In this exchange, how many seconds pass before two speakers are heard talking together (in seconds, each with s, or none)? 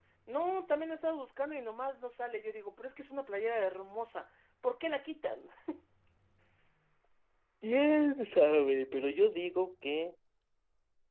none